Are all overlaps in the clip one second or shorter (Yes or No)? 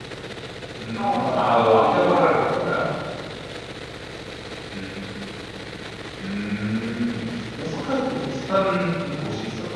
No